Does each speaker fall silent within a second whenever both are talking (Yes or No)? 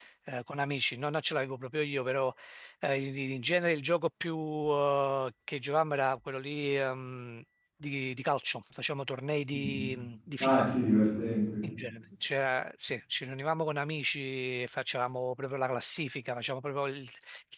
Yes